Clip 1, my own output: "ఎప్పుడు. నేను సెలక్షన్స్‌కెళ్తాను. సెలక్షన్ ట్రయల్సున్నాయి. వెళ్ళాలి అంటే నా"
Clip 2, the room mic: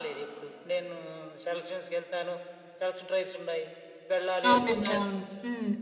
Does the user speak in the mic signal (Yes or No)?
Yes